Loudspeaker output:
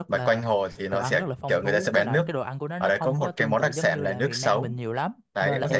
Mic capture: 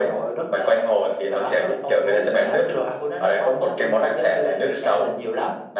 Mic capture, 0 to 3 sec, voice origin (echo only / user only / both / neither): echo only